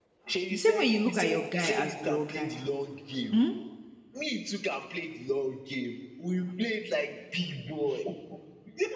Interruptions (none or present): present